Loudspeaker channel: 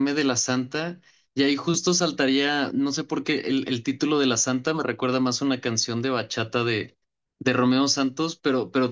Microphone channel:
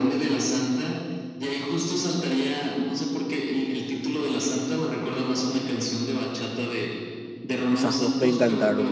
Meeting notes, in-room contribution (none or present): present